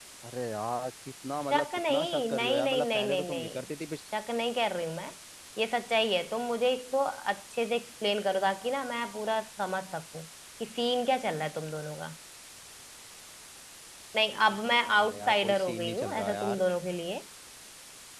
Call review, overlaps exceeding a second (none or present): present